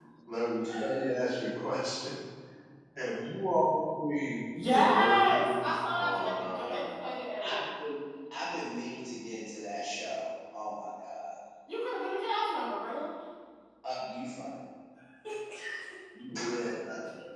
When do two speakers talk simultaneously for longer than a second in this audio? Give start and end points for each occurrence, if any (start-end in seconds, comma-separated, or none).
4.5-6.8